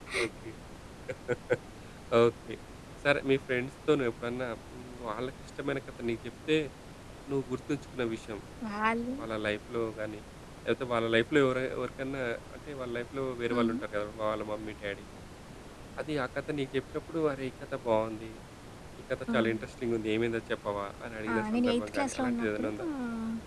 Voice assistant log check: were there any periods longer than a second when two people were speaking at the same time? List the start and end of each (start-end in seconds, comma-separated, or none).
21.3-22.9